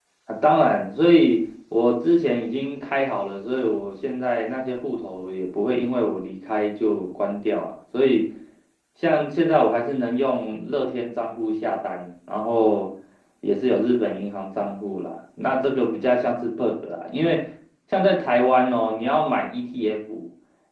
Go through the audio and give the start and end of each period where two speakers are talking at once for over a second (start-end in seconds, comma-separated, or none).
none